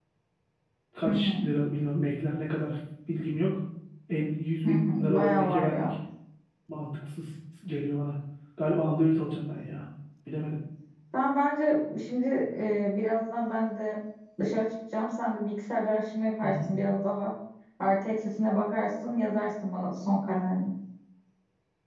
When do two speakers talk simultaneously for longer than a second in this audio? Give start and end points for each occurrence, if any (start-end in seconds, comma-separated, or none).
4.7-5.9